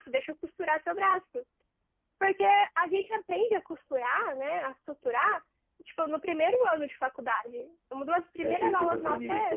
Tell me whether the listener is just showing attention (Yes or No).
No